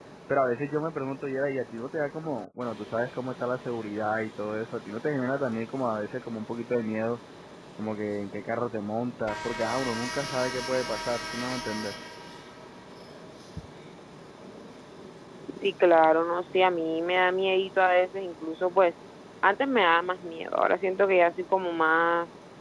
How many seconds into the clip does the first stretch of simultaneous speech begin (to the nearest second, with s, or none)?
none